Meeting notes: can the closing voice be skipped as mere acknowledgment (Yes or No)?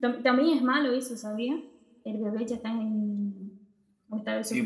No